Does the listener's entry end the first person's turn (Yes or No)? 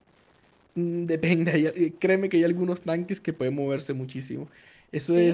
No